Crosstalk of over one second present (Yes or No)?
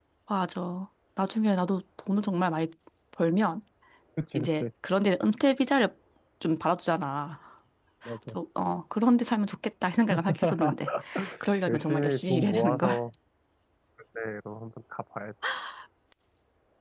Yes